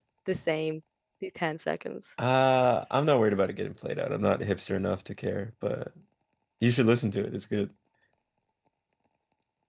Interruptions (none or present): none